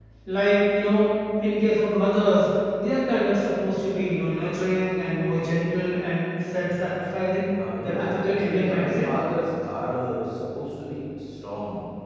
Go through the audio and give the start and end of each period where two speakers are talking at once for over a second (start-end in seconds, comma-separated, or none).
7.8-9.1